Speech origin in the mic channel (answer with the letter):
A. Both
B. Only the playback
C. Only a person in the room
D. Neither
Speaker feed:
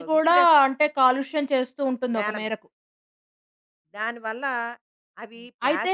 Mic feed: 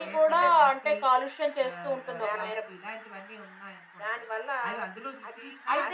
A